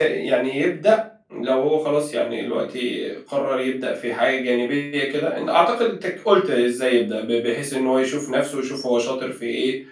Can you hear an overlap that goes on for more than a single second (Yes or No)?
No